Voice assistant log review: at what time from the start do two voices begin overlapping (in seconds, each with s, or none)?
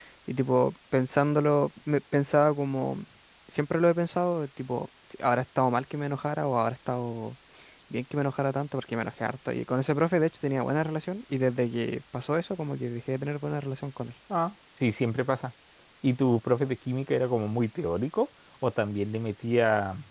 none